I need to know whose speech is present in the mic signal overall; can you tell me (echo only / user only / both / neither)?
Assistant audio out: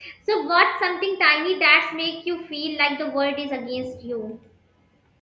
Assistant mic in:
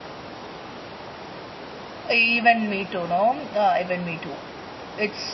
user only